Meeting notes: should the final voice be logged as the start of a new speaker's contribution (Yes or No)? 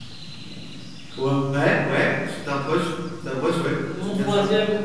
Yes